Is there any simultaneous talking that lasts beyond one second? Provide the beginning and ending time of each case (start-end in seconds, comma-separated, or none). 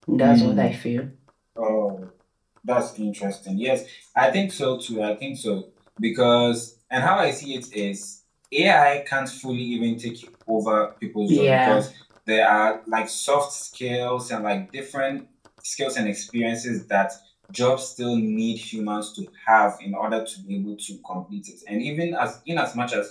none